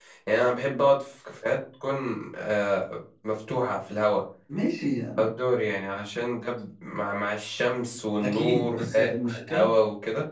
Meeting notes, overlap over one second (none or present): present